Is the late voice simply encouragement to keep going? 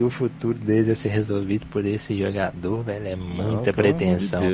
No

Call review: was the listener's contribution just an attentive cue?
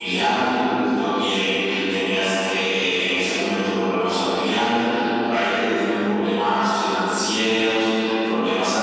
Yes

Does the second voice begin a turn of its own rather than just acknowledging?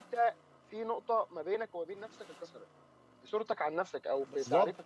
Yes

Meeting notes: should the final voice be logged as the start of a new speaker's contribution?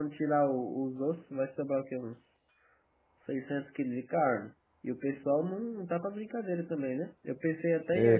No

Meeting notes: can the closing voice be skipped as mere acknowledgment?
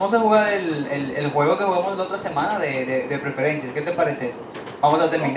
No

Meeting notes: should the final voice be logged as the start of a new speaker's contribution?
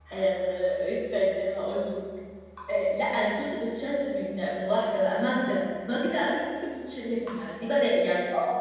No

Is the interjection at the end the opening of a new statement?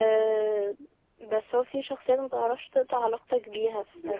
No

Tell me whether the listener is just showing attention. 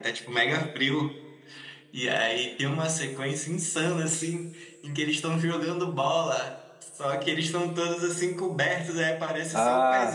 Yes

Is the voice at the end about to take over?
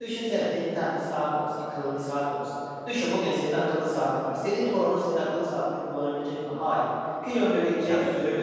No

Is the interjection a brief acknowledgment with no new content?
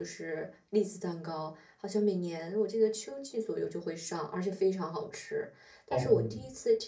Yes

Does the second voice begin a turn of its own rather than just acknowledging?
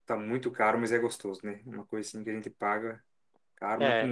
Yes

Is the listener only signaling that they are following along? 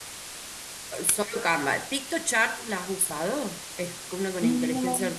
Yes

